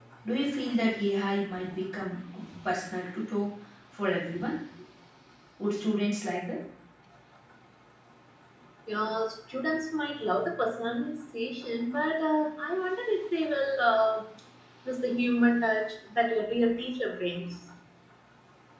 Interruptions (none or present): none